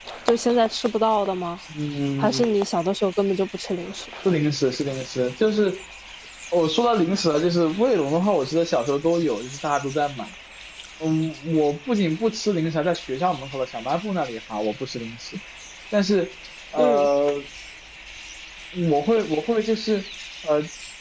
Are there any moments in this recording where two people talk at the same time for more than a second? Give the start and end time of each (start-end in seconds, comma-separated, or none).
none